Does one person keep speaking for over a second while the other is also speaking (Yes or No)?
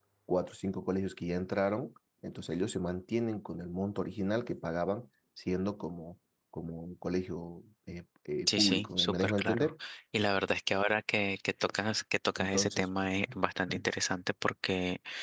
Yes